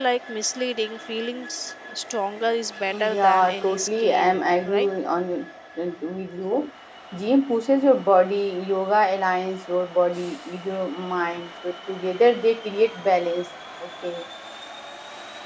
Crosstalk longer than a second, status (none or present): present